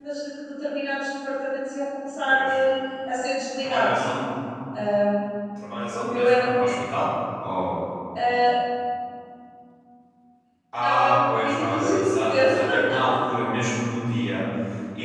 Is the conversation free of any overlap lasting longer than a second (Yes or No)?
No